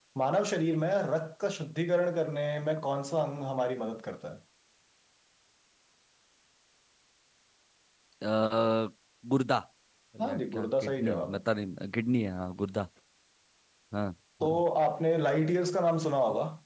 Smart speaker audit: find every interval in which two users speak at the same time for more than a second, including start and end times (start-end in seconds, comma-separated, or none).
10.2-11.4